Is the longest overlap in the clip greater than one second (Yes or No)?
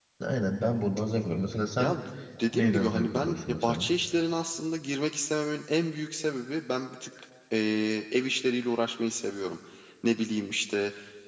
Yes